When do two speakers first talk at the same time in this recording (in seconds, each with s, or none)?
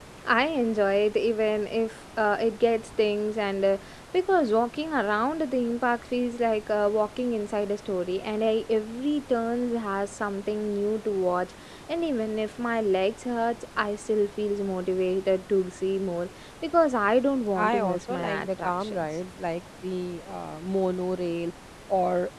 17.6 s